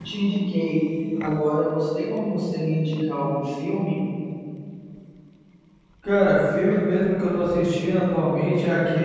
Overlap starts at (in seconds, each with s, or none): none